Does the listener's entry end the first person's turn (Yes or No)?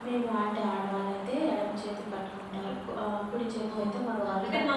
Yes